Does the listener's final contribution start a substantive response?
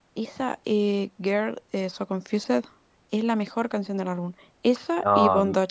Yes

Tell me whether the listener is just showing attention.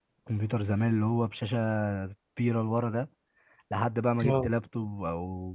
Yes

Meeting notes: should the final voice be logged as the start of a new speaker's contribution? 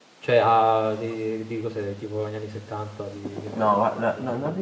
Yes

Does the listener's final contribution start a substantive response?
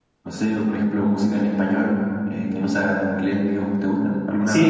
Yes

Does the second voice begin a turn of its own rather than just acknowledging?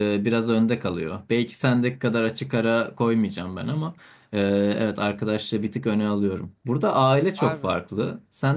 No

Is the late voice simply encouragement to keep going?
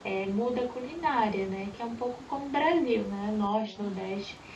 Yes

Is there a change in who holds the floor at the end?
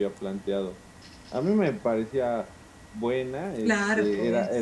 No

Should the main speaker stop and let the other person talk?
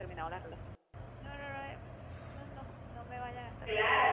Yes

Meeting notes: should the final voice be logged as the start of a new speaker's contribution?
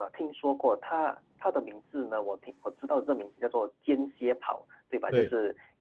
No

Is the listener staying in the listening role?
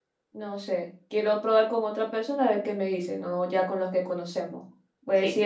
Yes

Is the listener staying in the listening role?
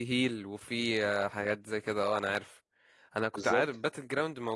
Yes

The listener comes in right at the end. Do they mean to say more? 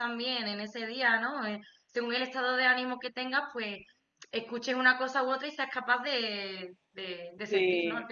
Yes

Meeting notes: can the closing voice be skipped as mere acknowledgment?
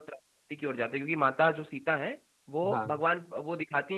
Yes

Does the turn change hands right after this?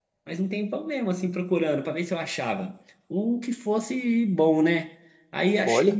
No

